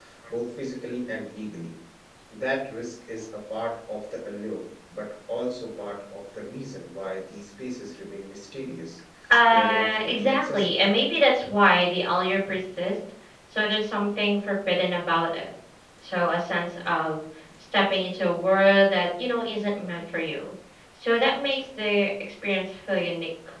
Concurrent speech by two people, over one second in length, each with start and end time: 9.5-10.8

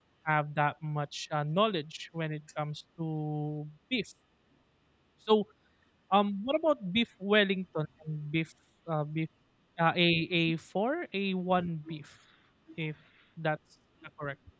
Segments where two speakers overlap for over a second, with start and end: none

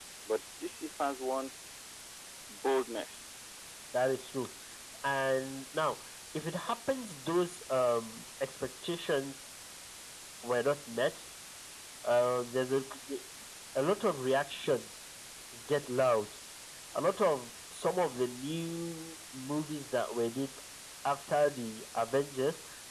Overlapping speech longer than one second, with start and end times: none

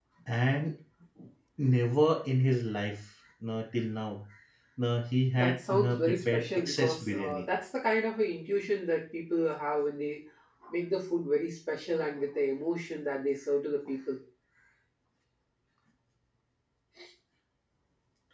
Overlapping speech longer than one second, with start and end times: 5.3-7.5

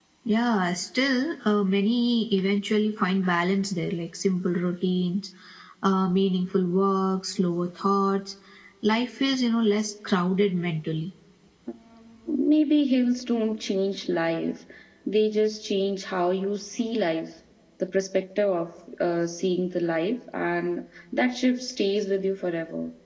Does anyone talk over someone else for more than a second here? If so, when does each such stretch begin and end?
none

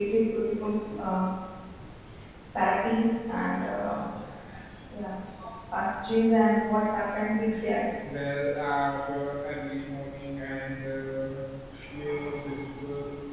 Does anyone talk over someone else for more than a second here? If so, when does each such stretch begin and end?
none

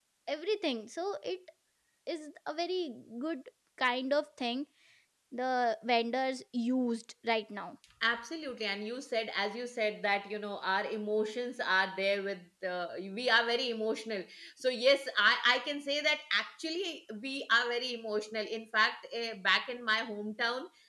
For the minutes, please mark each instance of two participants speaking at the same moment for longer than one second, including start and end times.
none

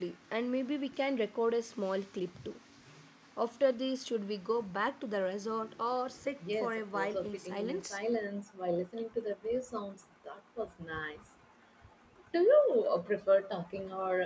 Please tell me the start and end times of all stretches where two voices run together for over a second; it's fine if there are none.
6.5-8.0

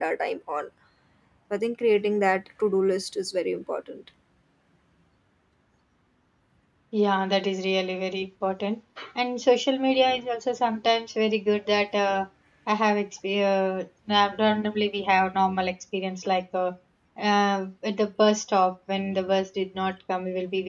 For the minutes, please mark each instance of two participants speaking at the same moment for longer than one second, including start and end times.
none

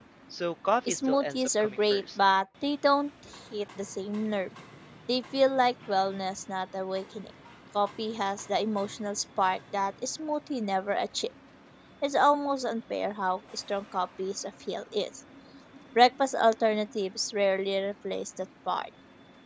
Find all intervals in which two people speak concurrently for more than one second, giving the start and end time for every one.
0.9-2.2

